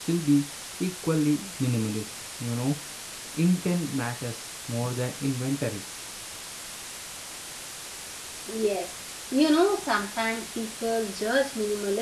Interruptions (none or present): none